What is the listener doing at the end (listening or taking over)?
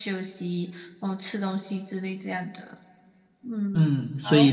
taking over